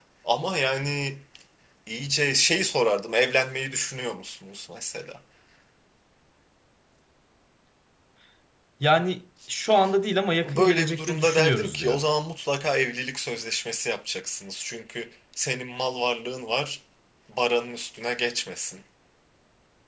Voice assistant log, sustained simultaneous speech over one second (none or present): present